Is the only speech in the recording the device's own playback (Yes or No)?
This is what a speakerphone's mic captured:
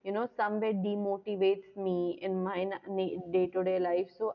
No